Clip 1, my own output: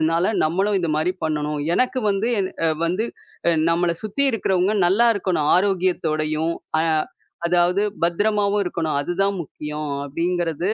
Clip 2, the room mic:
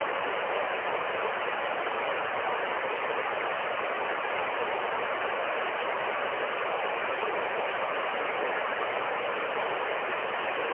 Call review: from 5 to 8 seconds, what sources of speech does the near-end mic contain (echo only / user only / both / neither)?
neither